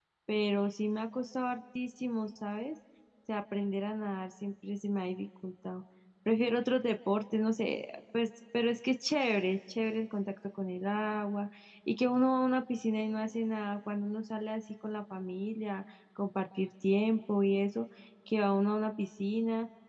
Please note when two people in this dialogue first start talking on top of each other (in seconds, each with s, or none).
none